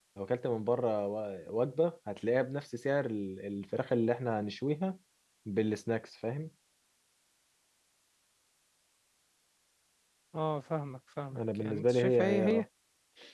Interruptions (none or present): present